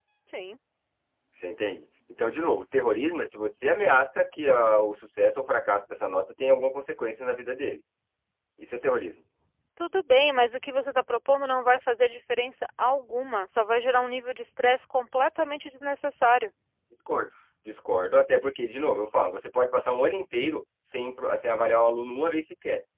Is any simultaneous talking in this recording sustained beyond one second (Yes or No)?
No